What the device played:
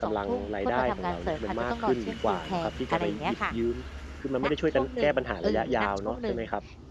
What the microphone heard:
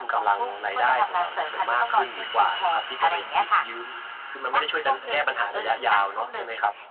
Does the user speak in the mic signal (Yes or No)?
No